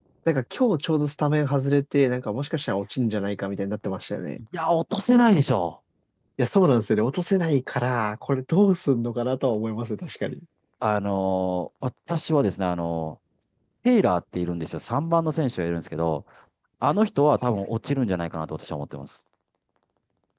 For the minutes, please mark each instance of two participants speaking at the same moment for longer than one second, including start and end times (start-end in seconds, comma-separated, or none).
none